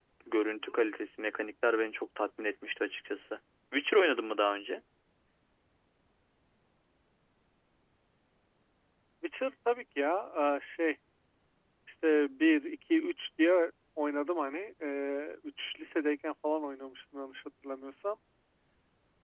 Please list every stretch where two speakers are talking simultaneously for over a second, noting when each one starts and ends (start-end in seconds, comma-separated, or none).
none